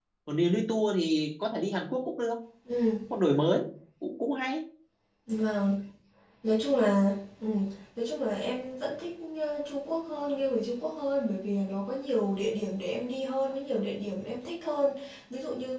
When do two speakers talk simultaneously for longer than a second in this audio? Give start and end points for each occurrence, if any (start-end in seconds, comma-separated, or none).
none